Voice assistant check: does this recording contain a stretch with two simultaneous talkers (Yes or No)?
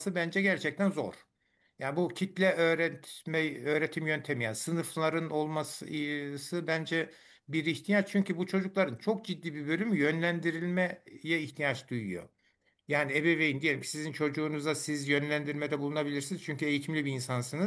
No